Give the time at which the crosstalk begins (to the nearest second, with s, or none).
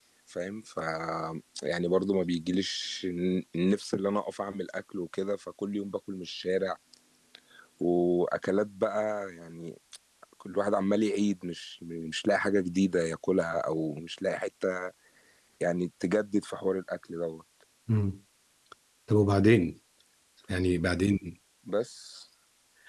none